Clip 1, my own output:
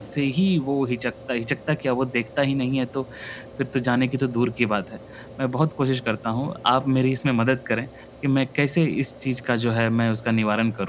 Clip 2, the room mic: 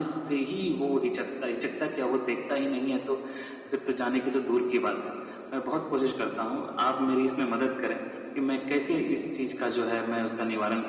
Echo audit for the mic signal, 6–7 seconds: echo only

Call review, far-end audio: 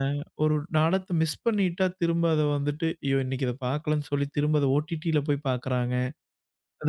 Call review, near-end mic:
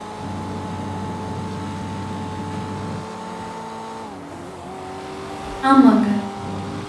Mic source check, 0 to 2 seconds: neither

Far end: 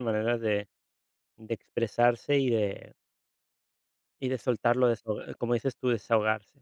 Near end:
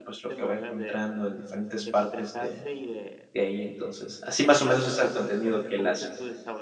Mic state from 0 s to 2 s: both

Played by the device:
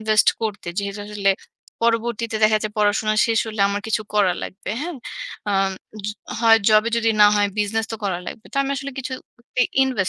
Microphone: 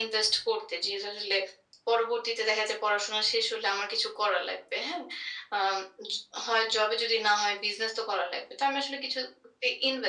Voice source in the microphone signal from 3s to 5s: echo only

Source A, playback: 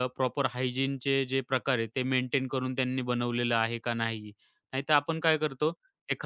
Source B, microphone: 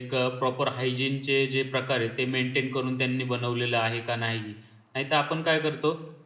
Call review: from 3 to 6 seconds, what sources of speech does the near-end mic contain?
echo only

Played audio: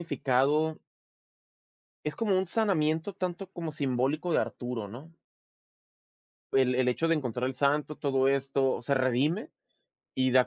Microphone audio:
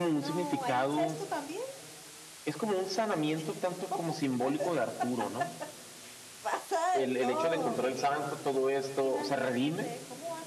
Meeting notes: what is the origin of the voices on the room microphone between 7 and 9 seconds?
both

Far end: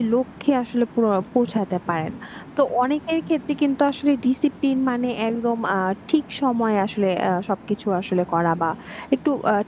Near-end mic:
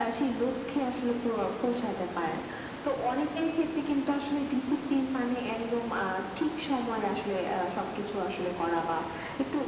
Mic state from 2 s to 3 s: echo only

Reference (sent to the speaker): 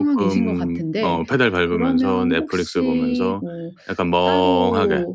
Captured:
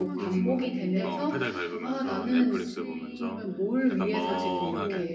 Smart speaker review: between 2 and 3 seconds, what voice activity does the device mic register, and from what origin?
both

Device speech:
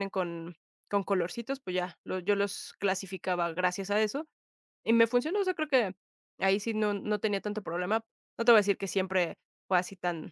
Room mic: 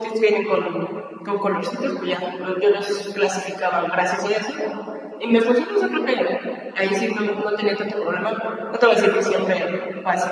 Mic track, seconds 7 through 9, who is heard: echo only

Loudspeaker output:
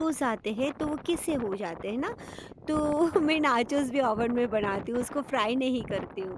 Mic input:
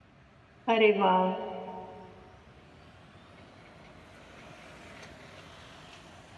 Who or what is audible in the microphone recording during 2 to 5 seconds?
neither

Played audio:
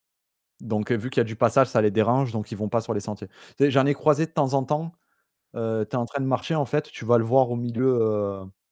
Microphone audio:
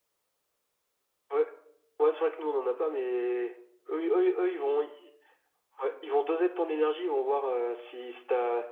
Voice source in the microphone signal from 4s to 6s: user only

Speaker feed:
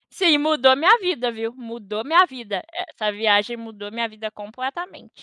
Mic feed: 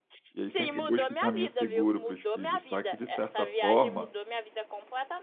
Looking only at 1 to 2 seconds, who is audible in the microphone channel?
both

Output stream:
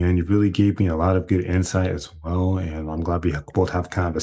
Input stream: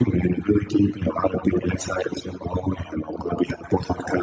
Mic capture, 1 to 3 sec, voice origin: echo only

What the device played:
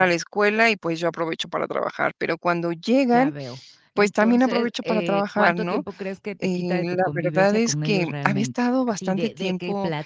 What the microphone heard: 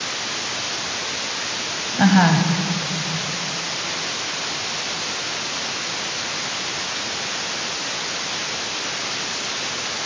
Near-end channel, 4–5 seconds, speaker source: neither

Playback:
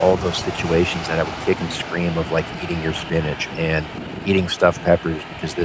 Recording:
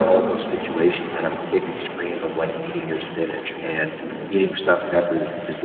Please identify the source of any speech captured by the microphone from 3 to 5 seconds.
both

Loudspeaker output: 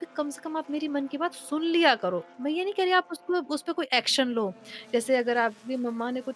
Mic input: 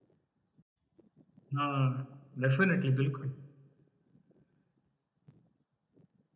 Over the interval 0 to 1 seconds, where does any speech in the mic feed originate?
neither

